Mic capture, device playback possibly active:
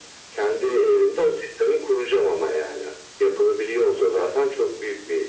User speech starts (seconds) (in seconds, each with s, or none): none